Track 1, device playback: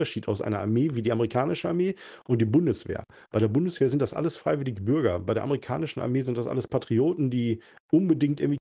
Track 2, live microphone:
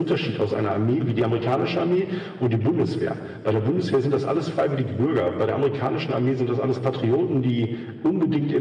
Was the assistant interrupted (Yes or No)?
No